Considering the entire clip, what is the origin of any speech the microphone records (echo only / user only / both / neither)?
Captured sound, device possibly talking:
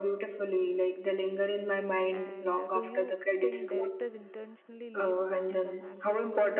both